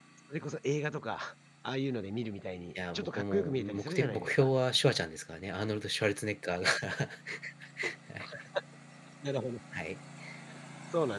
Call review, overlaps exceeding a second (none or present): present